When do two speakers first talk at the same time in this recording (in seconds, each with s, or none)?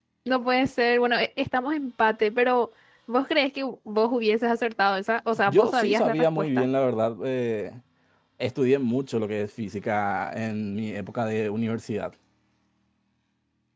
5.5 s